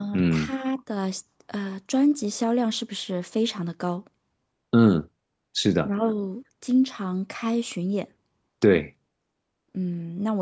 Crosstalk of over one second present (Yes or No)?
No